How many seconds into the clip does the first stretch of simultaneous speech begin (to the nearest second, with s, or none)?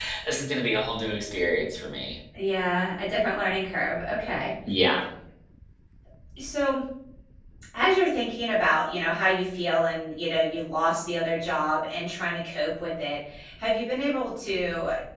none